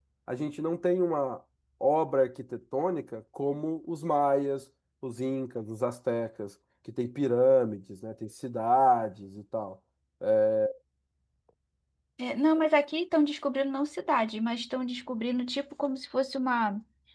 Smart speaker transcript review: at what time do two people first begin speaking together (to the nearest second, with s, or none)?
none